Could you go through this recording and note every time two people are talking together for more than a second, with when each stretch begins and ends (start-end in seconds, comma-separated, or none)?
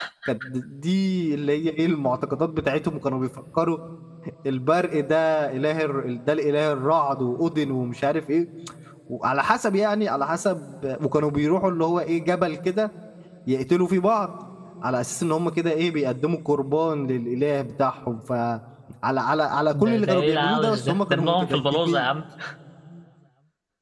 19.7-22.1